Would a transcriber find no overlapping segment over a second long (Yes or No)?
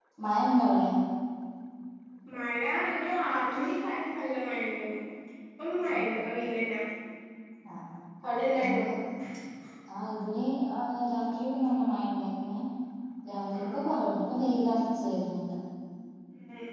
Yes